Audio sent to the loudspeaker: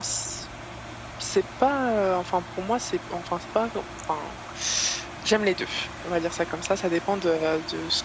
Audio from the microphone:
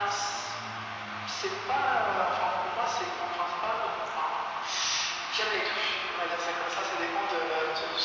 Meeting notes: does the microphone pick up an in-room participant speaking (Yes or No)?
No